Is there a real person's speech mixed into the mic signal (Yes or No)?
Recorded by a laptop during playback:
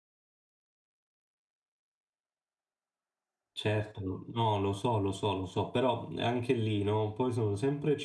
Yes